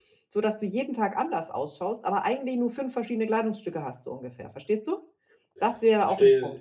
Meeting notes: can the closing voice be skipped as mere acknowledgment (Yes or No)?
No